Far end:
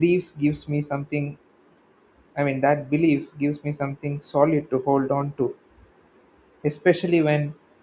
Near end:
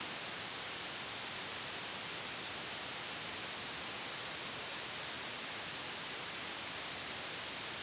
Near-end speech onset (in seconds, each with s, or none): none